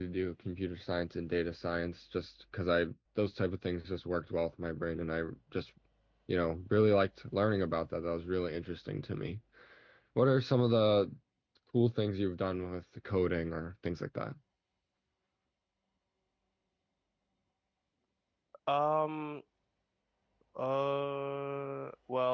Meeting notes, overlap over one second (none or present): none